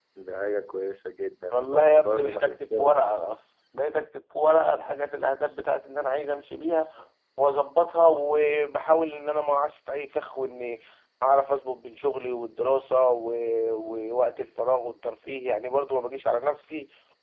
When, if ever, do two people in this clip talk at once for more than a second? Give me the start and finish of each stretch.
1.5-3.1

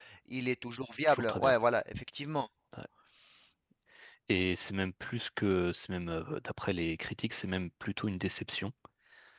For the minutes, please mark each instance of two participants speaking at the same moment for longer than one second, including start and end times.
none

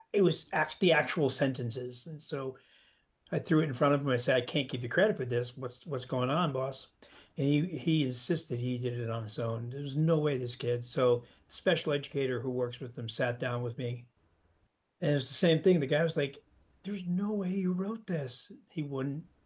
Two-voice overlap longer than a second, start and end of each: none

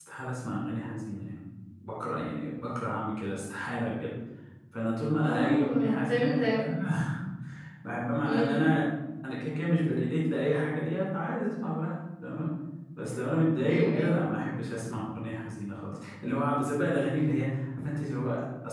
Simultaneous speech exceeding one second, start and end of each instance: 5.3-6.5

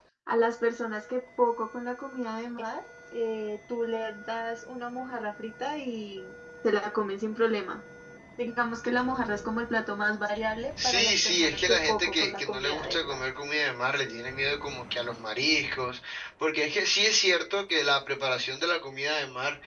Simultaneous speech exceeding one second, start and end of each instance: 10.8-13.2

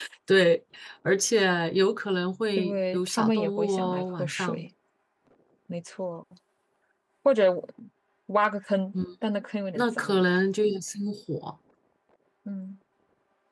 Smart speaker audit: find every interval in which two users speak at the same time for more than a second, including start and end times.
2.6-4.7

